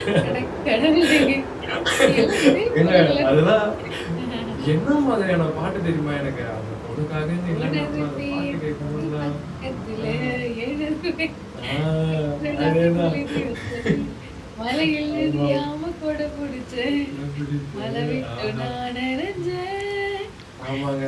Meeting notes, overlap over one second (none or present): present